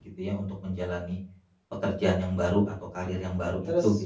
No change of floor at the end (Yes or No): No